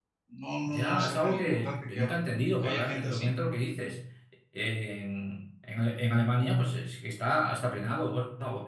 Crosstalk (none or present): present